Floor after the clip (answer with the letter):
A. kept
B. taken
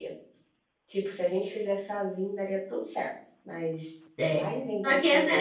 B